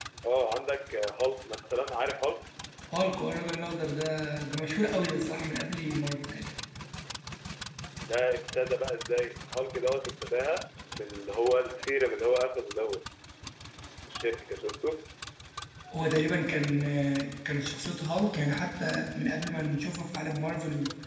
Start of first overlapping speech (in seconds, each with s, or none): none